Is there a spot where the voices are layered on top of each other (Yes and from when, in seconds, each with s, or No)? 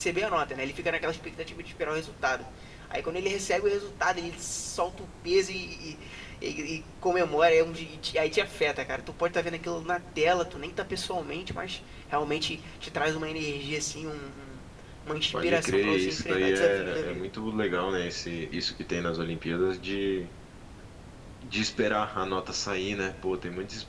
Yes, from 15.3 s